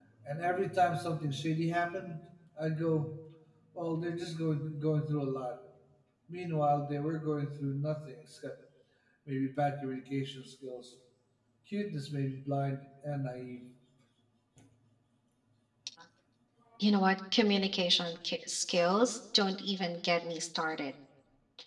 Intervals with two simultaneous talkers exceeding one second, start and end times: none

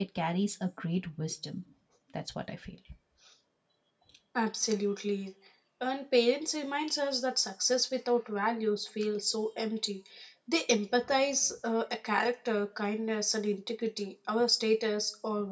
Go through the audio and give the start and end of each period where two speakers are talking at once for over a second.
none

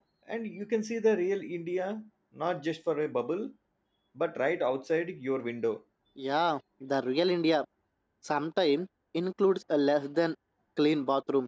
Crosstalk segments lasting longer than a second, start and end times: none

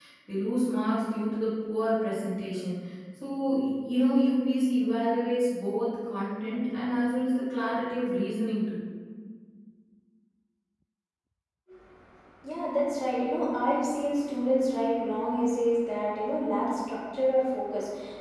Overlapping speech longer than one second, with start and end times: none

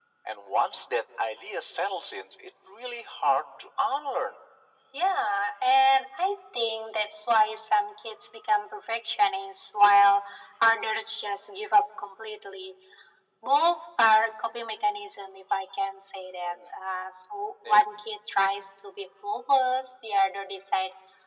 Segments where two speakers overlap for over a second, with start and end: none

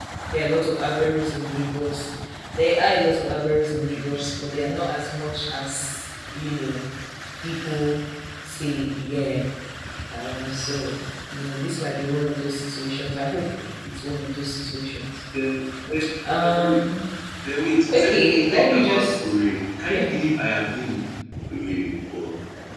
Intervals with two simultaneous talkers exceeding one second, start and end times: 17.9-19.4

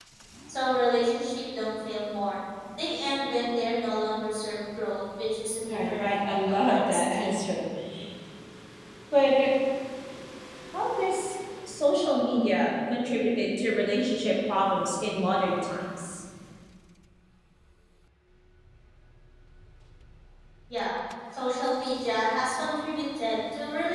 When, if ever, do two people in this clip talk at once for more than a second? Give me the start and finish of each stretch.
5.9-7.3

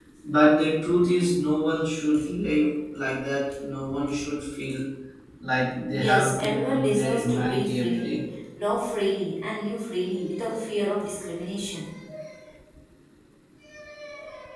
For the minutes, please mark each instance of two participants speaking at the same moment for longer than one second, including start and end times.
5.9-8.2

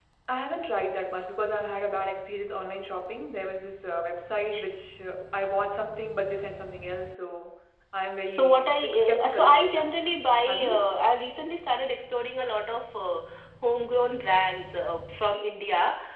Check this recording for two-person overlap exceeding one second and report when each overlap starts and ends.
8.3-9.9

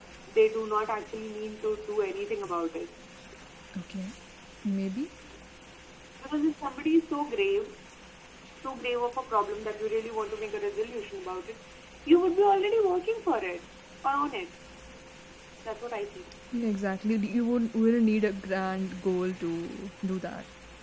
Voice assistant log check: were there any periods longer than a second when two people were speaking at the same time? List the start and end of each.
none

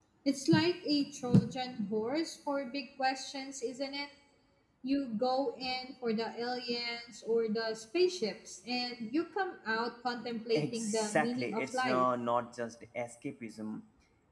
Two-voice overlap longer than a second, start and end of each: 10.5-12.1

